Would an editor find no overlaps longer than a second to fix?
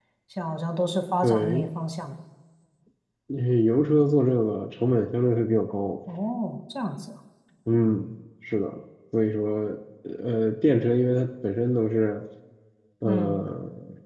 Yes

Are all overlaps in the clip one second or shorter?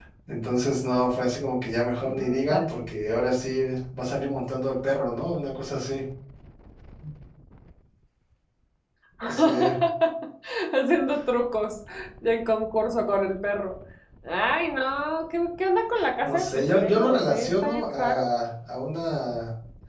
No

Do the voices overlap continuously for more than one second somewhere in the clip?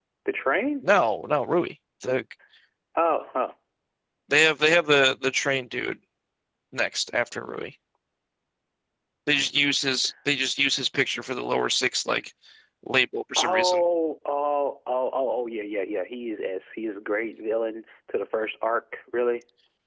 No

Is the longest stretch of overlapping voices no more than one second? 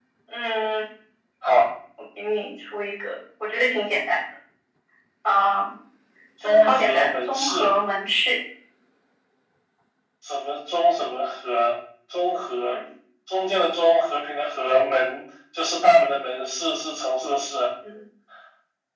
No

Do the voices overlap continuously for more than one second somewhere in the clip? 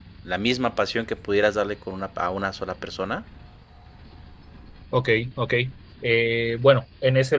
No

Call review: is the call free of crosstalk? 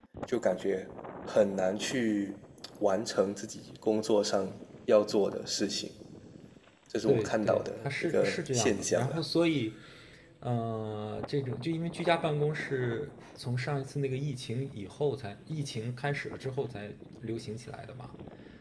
No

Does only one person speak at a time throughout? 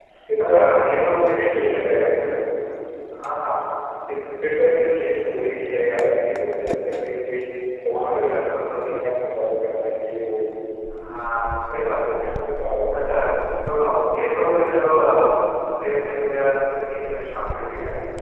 No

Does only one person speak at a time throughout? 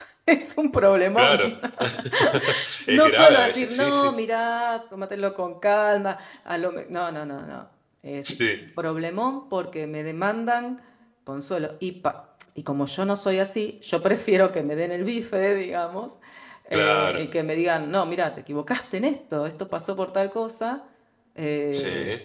No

